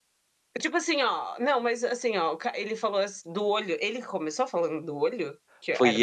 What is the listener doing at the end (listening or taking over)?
taking over